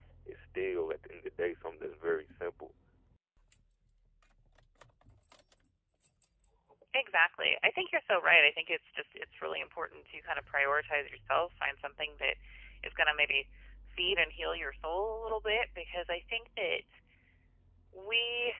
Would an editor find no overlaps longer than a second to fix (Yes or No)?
Yes